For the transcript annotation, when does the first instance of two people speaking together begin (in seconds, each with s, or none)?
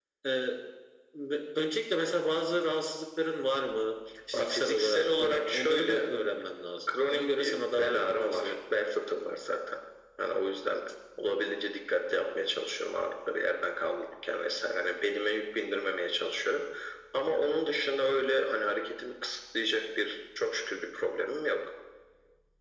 4.3 s